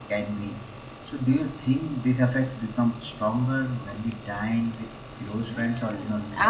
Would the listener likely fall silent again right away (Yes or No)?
No